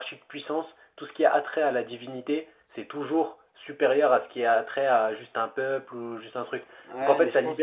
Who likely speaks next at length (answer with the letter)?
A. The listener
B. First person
A